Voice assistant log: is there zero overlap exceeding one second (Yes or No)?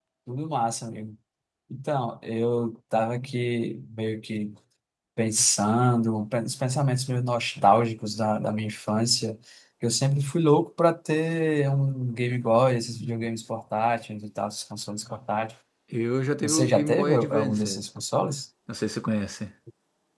No